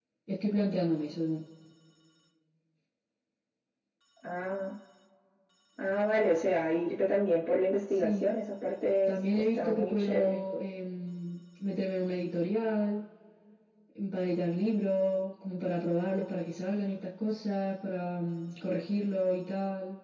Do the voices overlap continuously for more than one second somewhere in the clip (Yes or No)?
Yes